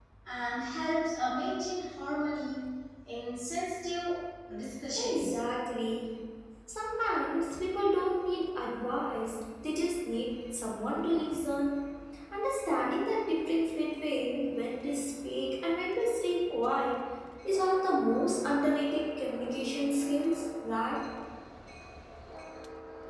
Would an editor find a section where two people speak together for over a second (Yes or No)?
No